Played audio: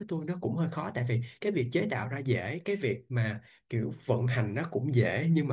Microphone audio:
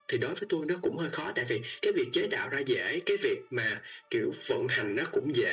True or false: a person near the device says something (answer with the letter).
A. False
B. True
A